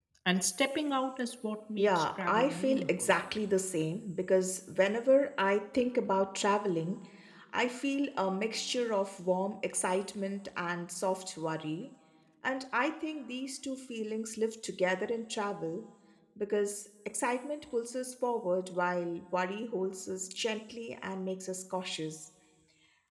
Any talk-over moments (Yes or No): Yes